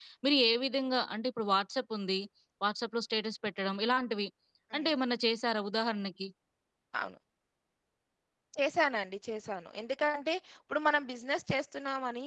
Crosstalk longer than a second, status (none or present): none